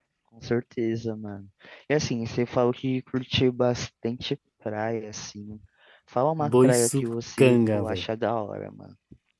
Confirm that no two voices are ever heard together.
No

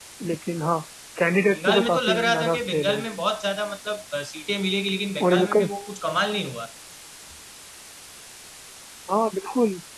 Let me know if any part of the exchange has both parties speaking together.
Yes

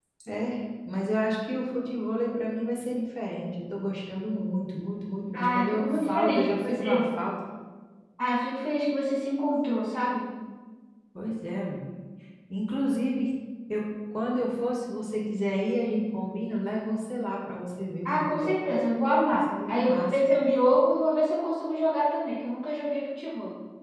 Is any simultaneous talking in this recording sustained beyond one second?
Yes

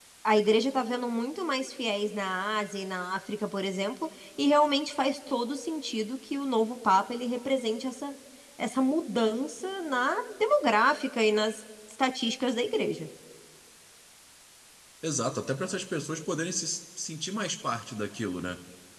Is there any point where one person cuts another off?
No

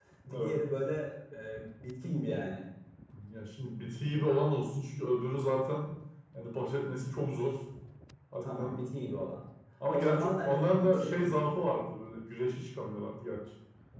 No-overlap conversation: No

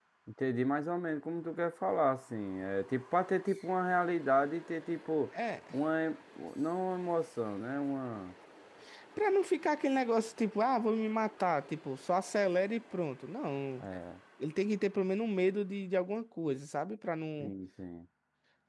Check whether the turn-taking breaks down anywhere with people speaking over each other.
No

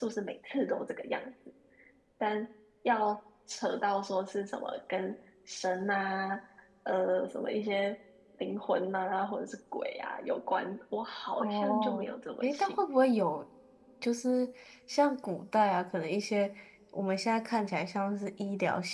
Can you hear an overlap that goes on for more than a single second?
Yes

